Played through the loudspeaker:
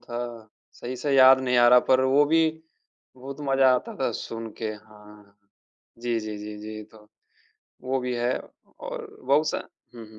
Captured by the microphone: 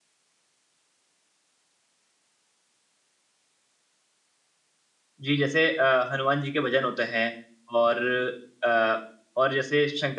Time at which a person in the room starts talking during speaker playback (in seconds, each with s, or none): 5.2 s